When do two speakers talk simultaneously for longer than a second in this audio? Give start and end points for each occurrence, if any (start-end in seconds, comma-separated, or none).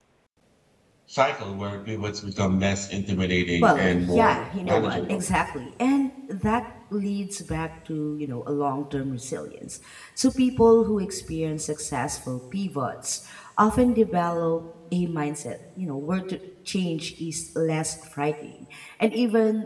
3.6-5.2